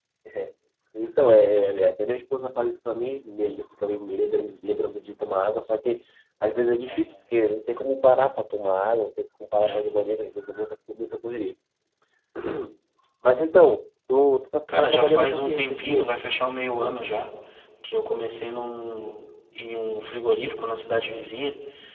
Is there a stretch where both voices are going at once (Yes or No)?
Yes